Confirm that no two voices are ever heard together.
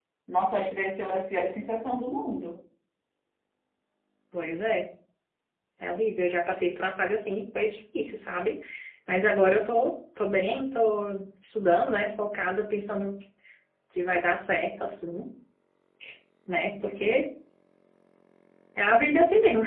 Yes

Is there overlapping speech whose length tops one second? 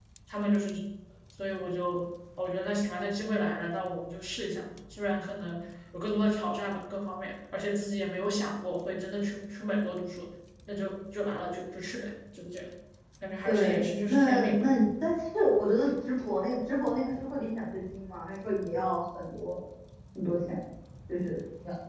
Yes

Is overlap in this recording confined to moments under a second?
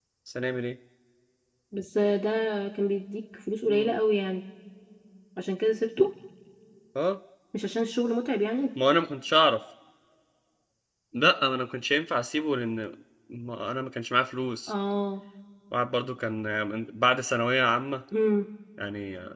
Yes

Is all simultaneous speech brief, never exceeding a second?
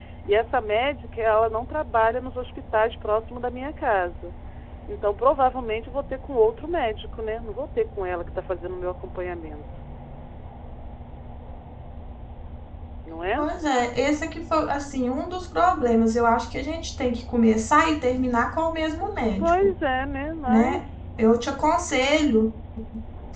Yes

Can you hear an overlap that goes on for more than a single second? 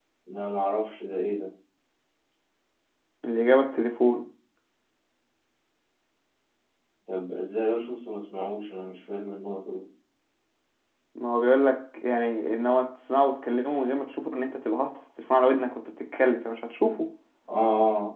No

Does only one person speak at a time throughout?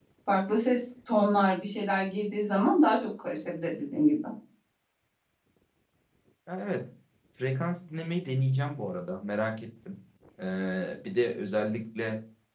Yes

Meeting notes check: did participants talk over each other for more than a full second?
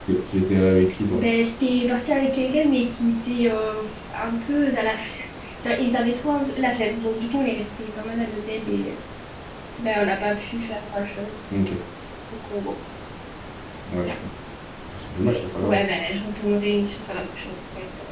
No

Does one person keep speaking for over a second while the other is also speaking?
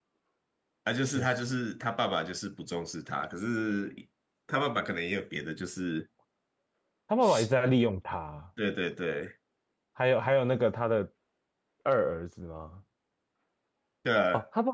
No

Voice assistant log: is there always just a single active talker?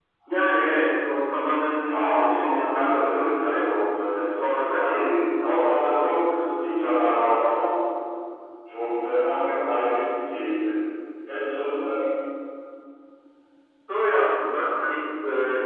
No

